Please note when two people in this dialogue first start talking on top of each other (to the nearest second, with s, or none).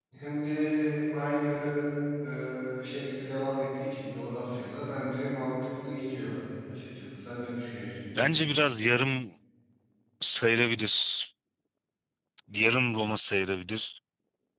none